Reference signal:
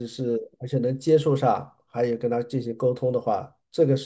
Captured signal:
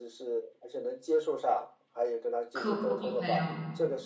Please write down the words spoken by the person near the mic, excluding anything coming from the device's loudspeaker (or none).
客户和朋友？